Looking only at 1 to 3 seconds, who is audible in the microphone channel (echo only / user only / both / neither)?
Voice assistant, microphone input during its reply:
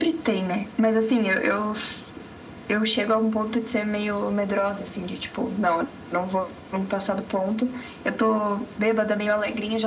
echo only